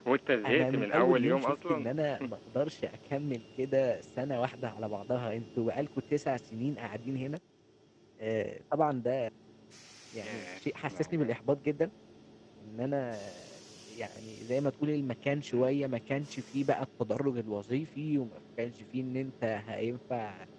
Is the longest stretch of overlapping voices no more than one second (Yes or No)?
No